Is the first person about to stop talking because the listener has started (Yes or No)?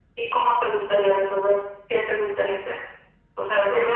No